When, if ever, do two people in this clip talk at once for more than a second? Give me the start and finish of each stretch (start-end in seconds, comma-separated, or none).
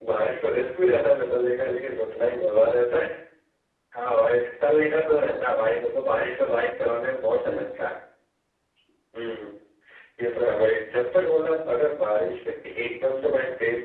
none